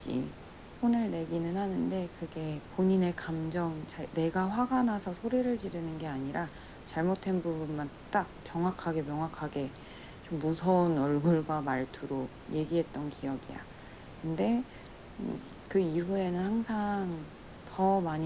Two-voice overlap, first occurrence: none

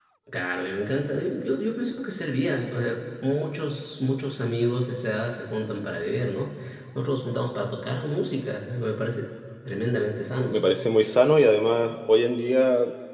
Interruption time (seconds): none

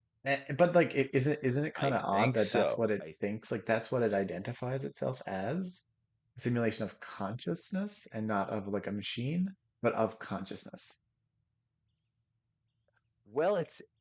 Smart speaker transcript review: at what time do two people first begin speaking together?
2 s

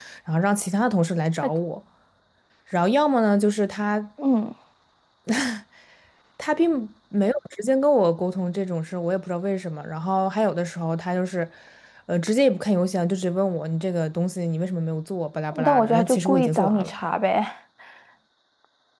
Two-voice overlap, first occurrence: 16 s

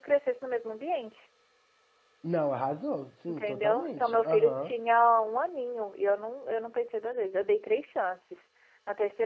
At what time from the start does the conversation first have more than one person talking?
3 s

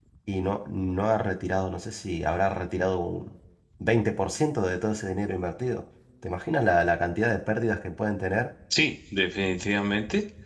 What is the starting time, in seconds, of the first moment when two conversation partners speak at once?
none

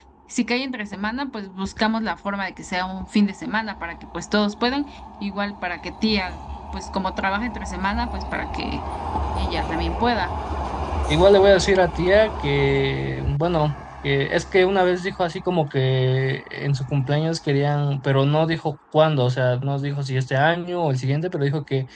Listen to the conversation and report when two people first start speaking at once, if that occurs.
none

